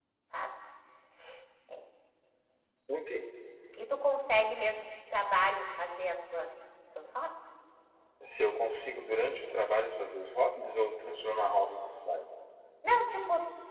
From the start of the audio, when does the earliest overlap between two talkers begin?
none

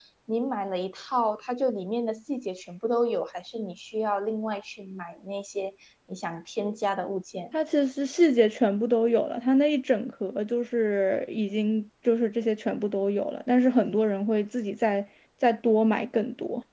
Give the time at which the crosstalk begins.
none

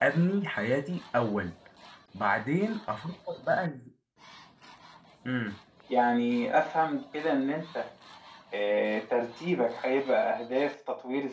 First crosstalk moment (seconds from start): none

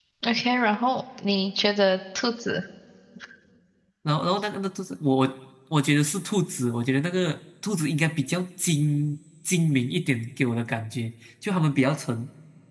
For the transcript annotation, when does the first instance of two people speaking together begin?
none

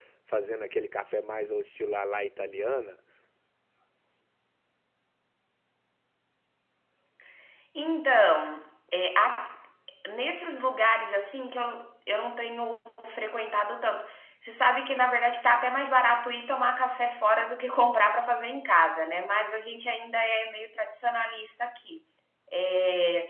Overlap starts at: none

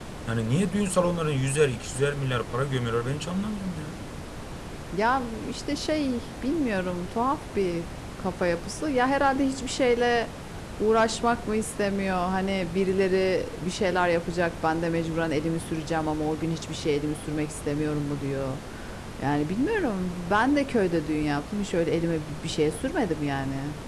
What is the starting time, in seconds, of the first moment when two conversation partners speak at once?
none

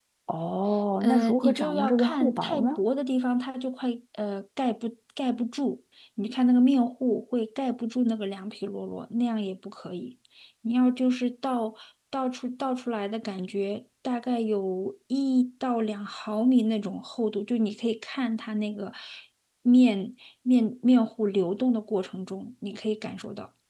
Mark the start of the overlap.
1 s

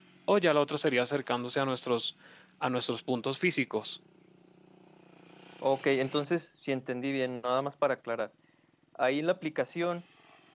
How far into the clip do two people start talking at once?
none

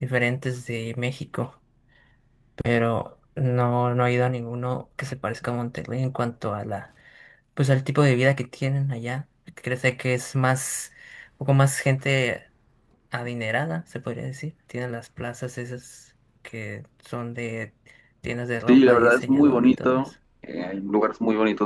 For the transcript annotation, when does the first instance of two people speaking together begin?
19 s

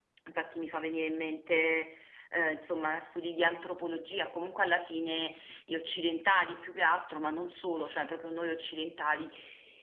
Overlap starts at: none

